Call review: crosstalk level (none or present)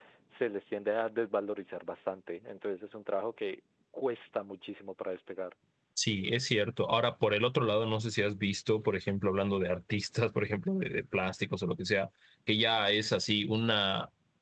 none